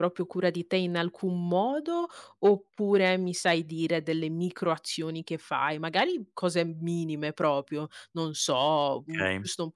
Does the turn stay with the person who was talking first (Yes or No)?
Yes